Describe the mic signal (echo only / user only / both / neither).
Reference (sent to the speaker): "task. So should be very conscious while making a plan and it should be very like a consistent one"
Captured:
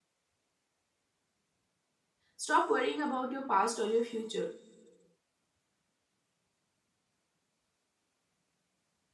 user only